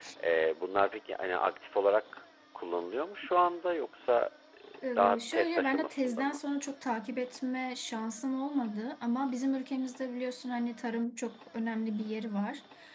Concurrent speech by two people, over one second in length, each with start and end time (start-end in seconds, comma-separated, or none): 5.0-6.4